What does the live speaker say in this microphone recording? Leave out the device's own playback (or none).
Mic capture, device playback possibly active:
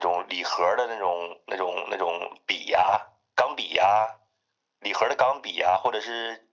none